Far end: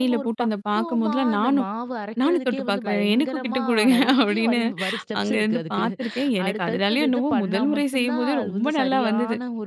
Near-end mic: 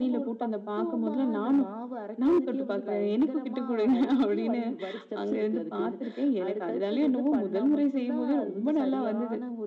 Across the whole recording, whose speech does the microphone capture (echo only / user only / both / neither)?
echo only